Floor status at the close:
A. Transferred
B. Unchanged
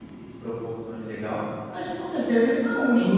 A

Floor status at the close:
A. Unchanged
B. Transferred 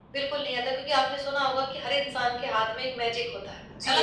B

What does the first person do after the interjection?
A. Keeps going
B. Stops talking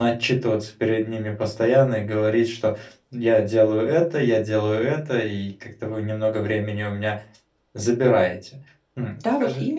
B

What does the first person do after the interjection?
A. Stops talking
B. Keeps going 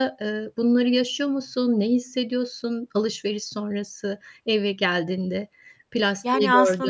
A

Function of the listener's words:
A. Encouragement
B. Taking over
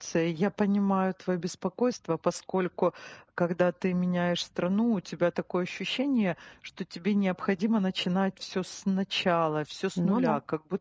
A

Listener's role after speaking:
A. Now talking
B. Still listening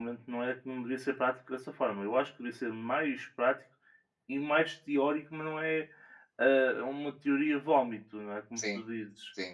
B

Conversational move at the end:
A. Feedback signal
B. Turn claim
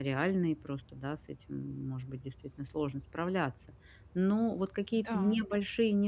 A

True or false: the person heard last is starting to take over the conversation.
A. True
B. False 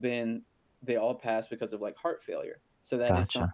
B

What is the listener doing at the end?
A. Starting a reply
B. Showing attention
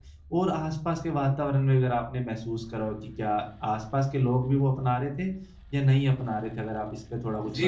A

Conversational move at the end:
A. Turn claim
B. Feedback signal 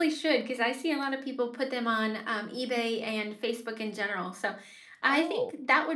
B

